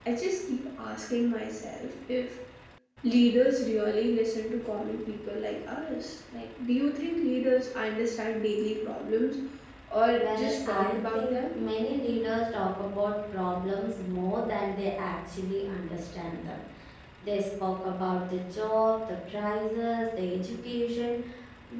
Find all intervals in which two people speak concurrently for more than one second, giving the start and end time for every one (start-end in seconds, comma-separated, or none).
10.2-11.6